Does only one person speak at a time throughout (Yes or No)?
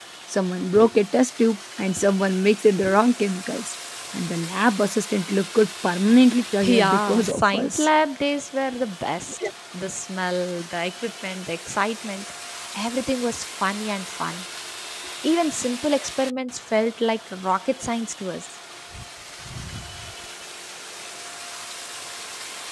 No